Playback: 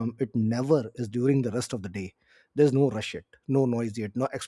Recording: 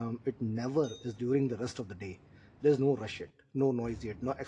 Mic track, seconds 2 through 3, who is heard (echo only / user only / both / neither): echo only